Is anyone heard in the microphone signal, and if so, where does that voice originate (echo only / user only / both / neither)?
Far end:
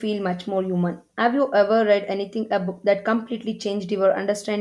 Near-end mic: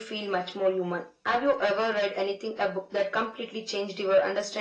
echo only